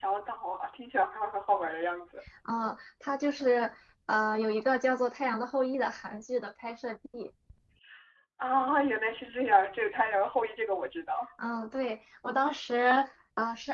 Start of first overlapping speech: none

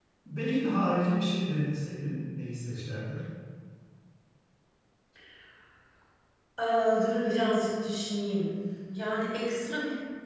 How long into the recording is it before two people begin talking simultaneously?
none

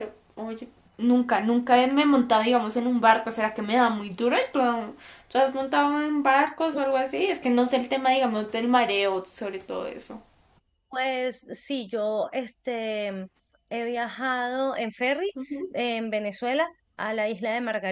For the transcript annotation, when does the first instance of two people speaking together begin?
none

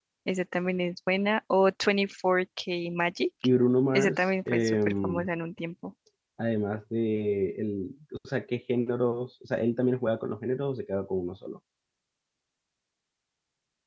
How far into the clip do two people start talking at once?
3.9 s

